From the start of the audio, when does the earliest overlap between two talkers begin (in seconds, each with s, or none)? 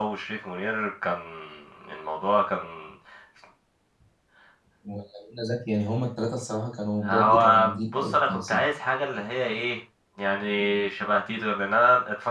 7.0 s